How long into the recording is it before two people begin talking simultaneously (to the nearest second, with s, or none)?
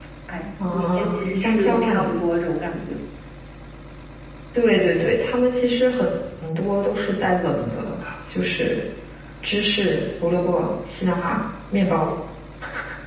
1 s